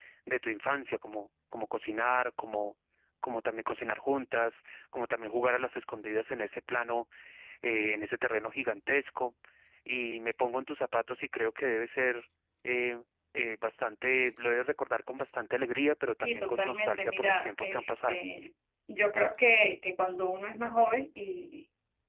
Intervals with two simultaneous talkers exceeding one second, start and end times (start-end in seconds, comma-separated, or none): 16.1-18.2